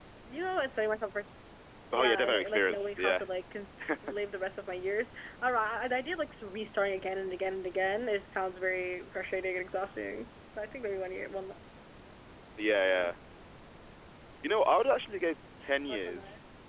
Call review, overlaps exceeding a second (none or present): present